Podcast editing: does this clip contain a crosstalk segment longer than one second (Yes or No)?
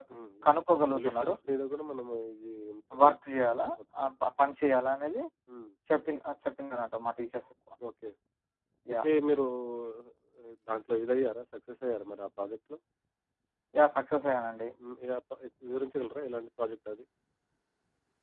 No